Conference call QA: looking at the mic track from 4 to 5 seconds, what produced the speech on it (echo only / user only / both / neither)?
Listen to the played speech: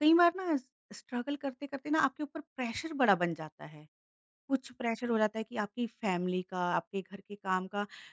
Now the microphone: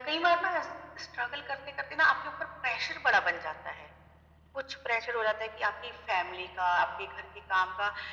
echo only